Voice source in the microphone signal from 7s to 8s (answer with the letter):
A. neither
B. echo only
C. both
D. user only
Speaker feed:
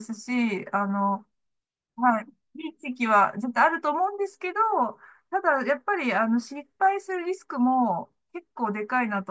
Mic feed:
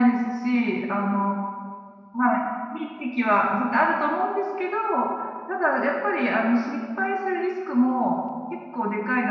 B